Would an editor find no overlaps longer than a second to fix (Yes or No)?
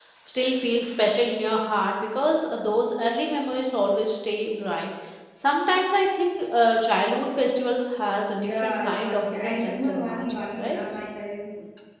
No